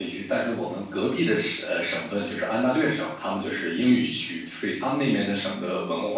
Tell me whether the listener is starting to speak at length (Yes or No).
No